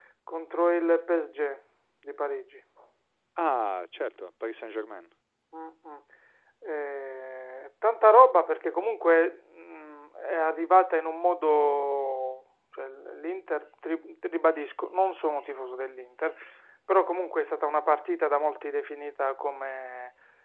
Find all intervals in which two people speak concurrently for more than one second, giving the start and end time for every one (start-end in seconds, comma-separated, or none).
none